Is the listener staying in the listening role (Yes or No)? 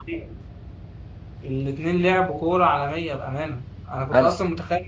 Yes